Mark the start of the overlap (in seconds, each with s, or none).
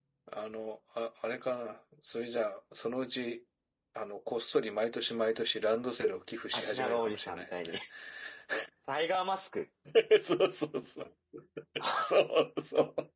6.5 s